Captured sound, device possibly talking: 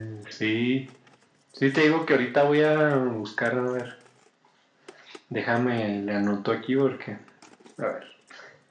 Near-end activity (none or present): none